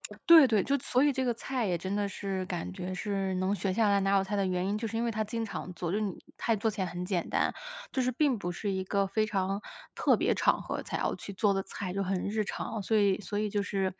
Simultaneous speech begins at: none

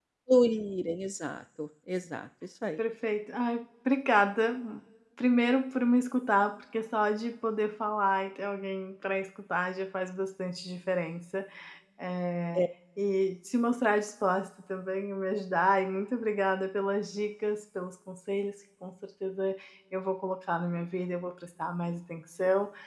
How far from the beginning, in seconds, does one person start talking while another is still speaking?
none

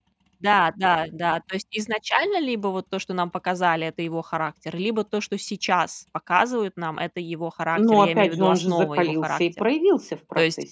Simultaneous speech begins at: 7.8 s

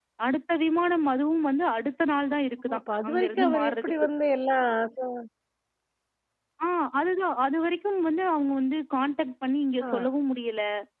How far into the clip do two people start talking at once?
2.7 s

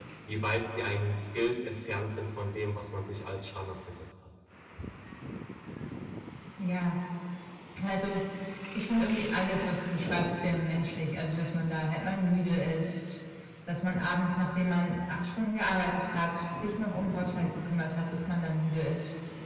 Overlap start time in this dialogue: none

